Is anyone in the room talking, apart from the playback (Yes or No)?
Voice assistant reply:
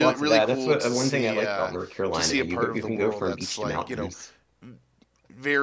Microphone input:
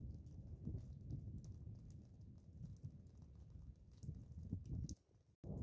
No